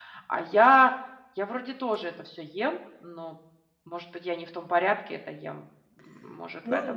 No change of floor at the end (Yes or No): No